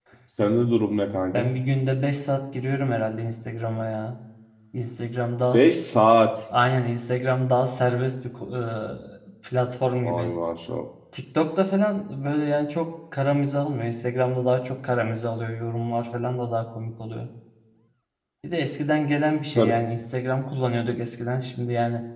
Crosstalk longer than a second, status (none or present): none